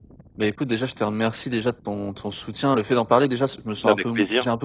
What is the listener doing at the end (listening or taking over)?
listening